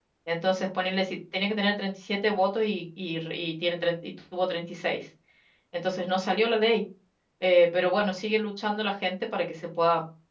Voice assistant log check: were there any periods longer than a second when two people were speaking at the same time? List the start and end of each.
none

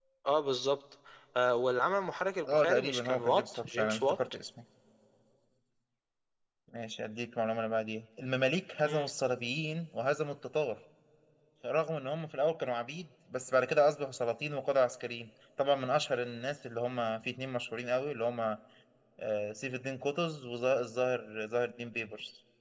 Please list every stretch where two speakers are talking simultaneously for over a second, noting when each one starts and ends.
2.5-4.2

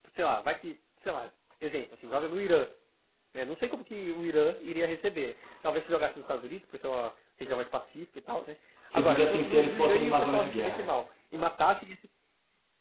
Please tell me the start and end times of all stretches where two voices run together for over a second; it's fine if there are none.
8.9-10.9

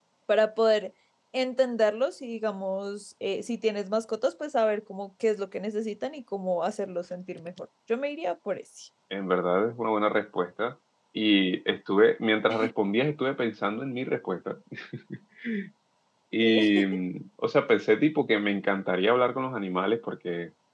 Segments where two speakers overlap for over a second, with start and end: none

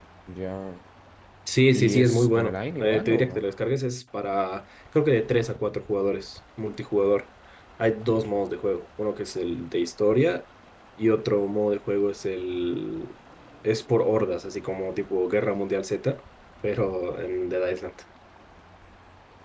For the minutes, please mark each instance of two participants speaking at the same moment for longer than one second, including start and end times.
1.7-3.4

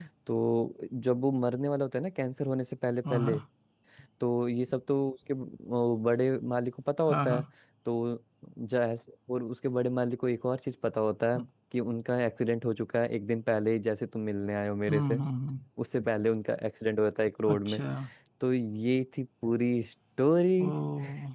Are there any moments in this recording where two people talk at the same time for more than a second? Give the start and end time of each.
none

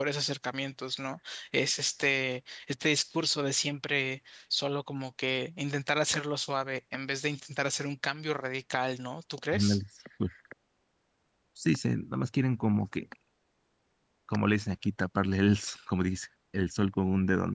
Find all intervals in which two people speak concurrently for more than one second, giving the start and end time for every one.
none

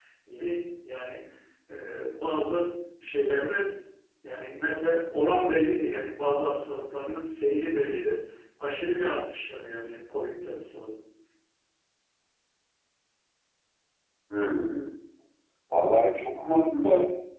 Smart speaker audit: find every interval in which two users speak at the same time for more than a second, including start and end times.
none

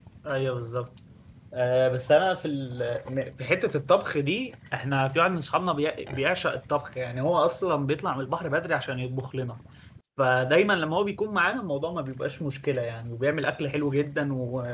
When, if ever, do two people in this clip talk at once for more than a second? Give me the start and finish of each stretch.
none

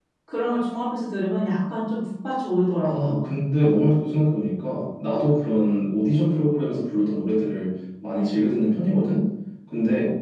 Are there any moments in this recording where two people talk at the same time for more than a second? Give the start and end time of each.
none

